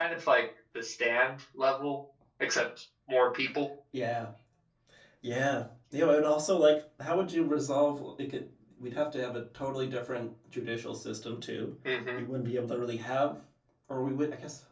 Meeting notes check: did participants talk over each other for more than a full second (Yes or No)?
No